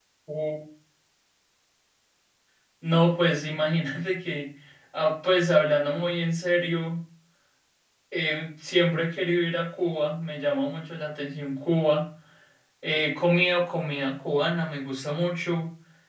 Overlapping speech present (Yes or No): No